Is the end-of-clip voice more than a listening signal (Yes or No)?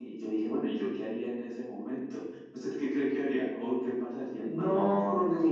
Yes